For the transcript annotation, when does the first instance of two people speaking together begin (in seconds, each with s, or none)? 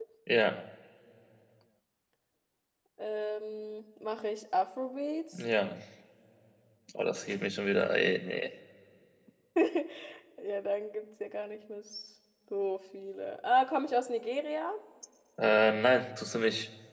none